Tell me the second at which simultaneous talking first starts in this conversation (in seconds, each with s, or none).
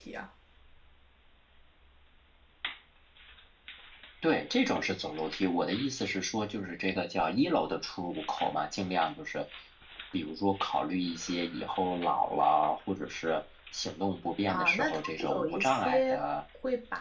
14.5 s